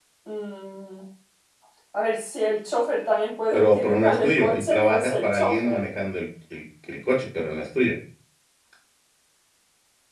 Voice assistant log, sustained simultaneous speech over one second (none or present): present